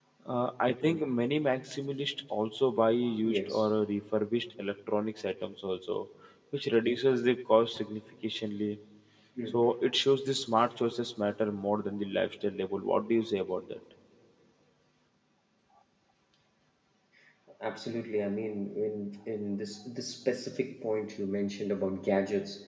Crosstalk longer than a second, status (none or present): none